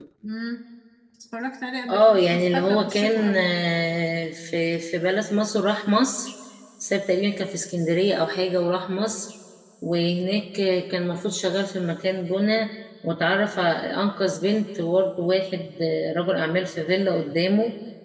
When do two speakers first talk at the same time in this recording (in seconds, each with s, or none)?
1.9 s